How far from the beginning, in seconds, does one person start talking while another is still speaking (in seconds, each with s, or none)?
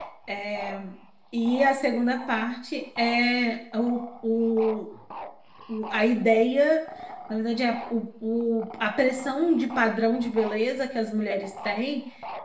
none